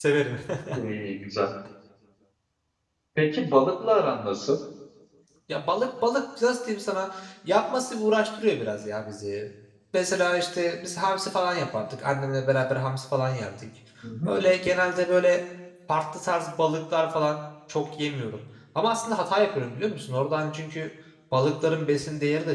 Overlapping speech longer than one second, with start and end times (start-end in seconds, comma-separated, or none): none